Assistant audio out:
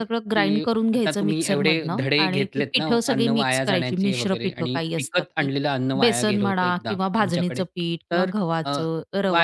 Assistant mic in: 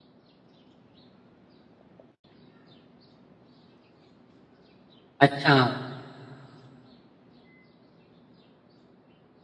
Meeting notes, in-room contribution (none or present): present